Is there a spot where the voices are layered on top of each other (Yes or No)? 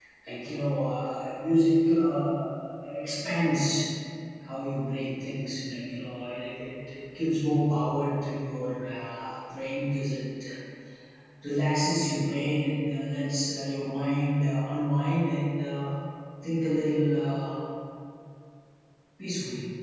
No